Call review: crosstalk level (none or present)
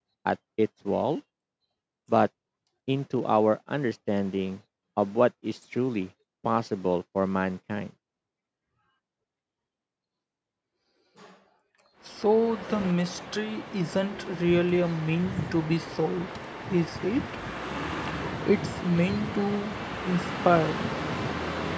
none